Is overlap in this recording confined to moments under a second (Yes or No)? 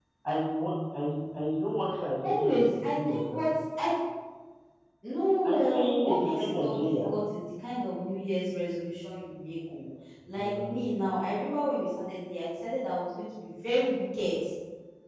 No